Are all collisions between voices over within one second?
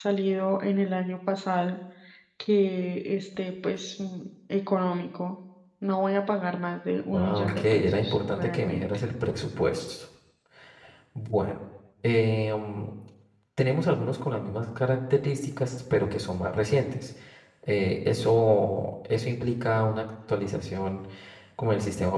No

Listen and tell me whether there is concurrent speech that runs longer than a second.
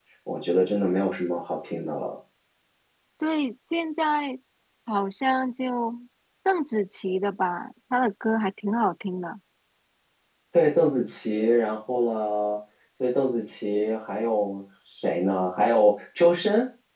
No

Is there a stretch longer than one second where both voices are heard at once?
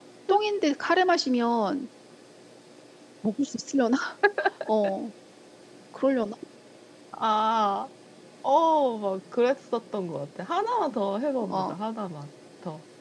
No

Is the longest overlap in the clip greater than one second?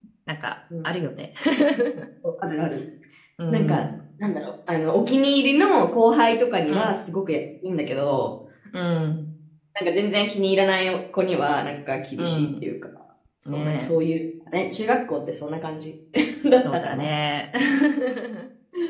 No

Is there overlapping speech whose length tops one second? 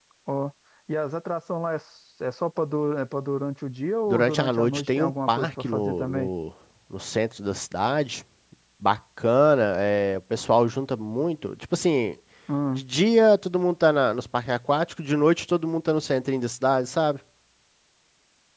Yes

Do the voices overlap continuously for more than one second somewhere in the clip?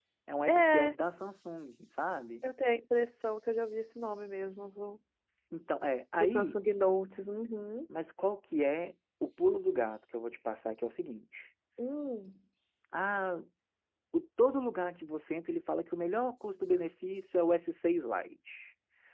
No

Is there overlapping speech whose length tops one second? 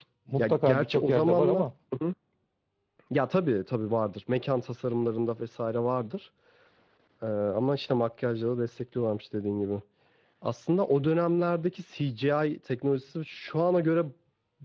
Yes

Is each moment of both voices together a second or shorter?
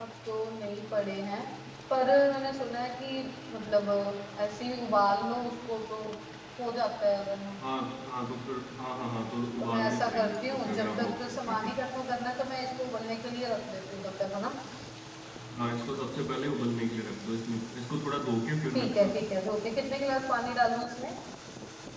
No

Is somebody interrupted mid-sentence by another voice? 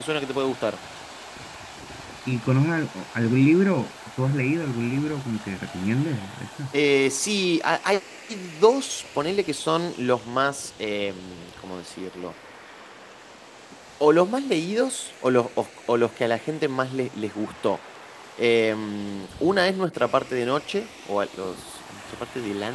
No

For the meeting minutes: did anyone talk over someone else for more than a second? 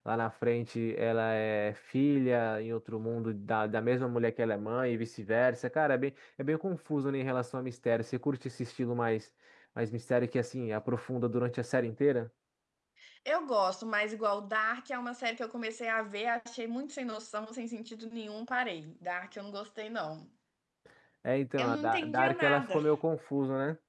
Yes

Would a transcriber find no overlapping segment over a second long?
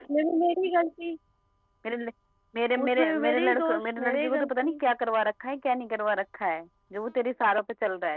No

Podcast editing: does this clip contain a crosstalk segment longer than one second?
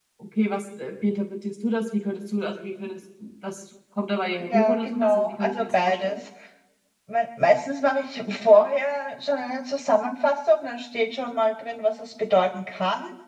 Yes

